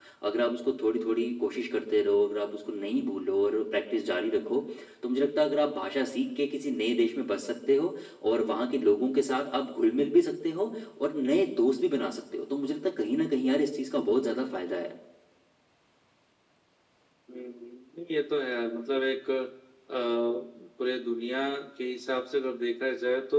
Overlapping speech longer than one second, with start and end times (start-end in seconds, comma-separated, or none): none